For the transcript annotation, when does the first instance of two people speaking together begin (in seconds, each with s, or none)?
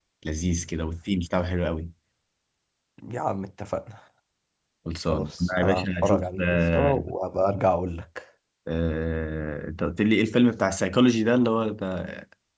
5.1 s